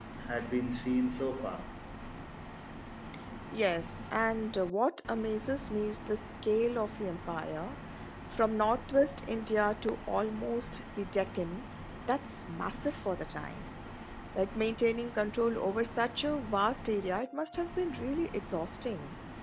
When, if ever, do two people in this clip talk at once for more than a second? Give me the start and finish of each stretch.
none

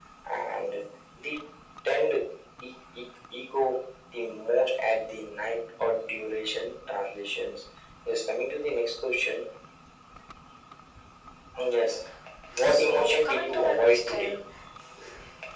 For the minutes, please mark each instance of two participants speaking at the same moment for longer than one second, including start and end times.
12.7-14.4

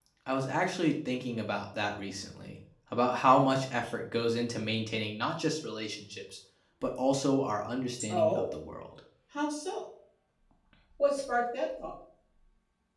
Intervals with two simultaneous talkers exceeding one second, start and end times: none

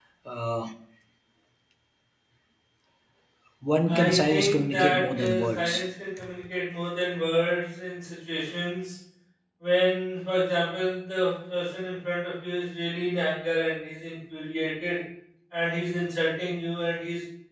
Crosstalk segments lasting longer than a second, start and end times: 3.9-5.9

